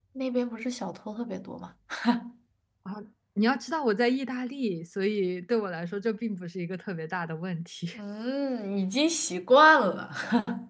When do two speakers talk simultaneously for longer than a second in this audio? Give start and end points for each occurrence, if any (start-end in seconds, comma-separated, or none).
none